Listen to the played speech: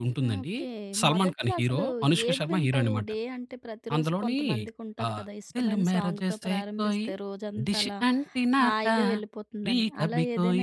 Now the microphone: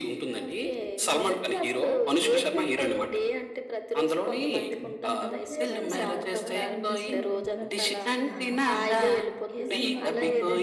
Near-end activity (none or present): present